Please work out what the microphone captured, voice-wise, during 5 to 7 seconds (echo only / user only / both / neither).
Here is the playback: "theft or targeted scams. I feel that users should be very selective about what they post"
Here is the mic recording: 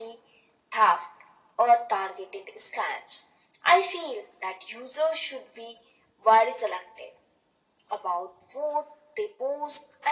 echo only